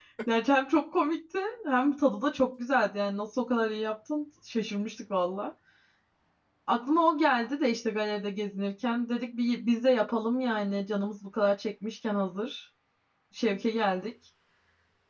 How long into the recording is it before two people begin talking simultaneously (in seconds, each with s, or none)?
none